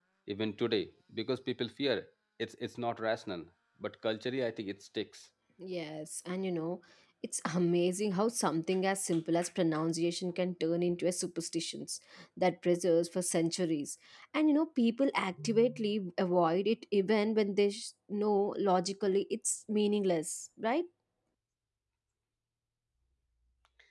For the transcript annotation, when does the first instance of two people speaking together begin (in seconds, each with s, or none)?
none